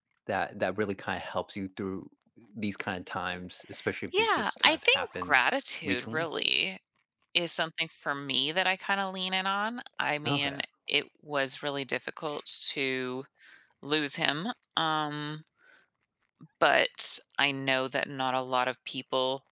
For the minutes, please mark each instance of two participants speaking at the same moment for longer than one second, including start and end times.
4.2-5.4

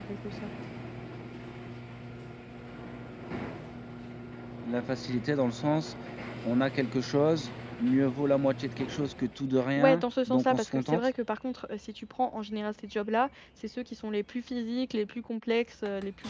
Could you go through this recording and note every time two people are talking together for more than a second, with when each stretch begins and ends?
9.8-11.1

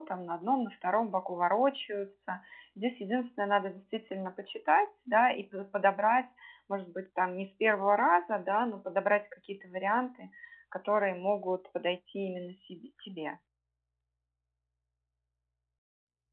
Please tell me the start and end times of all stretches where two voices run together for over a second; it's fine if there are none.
none

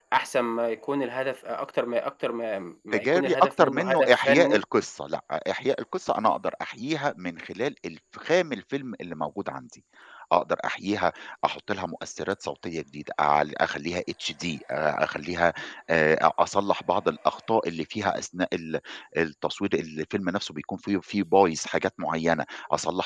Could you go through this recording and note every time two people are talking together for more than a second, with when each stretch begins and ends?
2.9-4.6

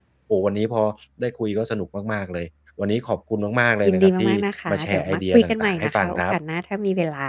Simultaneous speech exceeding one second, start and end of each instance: 4.7-6.3

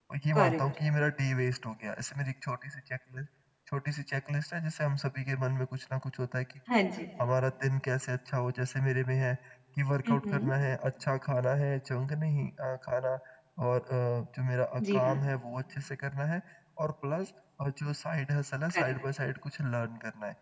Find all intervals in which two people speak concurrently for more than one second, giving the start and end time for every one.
none

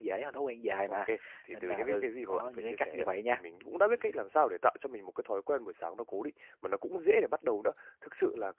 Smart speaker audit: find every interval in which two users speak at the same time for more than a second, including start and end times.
1.5-3.4

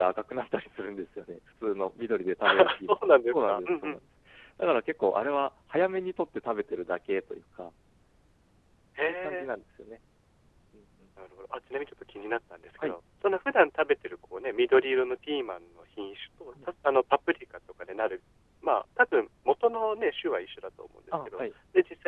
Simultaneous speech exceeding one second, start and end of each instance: 2.4-4.0

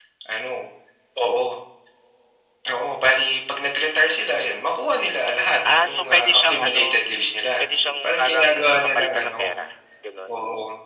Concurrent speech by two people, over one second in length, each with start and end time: 5.8-7.0, 7.6-9.4

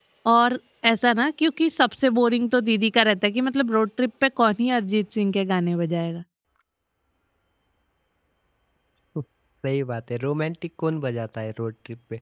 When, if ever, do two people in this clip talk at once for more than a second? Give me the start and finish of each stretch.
none

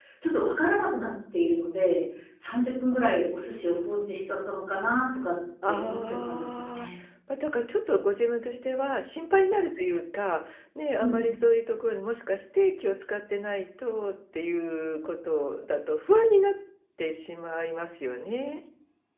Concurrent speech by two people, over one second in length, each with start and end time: 5.7-6.9

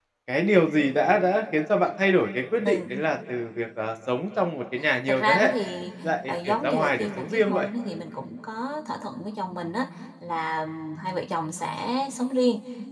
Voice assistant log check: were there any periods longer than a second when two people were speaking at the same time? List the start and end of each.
6.2-7.7

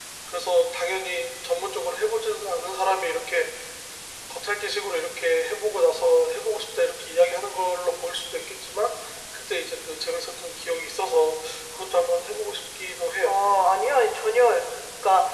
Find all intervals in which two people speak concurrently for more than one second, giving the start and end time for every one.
none

